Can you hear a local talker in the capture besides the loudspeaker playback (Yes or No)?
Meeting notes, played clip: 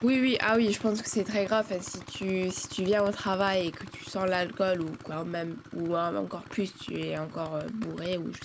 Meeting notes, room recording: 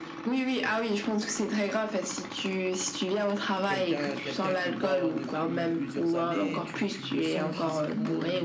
Yes